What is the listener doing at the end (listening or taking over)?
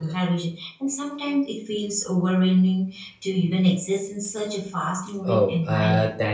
taking over